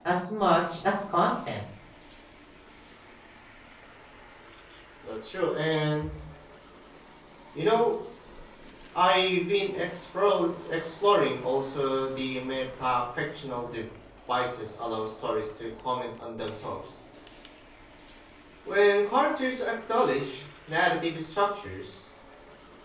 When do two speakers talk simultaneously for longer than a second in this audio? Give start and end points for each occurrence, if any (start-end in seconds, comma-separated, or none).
none